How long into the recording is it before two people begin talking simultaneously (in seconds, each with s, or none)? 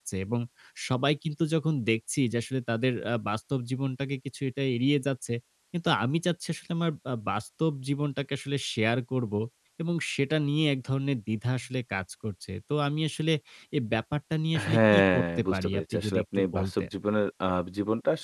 14.5 s